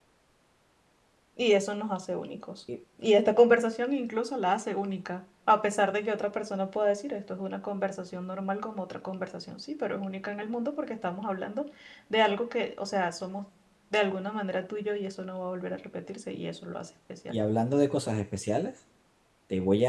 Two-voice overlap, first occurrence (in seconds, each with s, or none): none